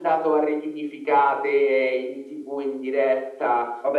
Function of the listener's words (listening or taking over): taking over